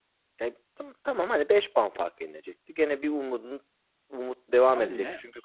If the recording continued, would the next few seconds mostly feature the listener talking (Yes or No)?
Yes